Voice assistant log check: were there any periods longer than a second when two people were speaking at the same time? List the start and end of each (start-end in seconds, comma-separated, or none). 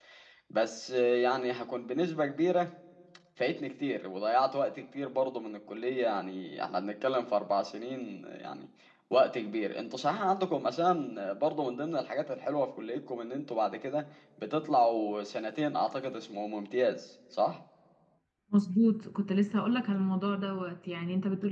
none